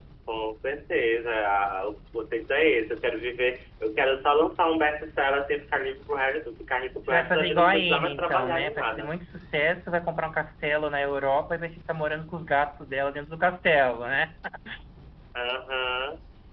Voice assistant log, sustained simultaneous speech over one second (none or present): present